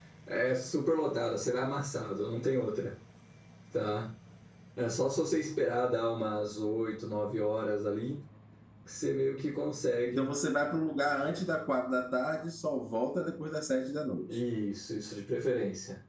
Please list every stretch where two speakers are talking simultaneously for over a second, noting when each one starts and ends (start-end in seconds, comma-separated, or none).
none